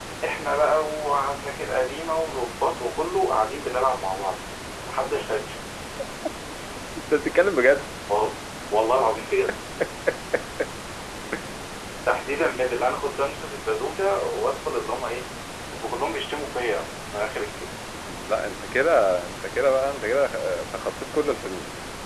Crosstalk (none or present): none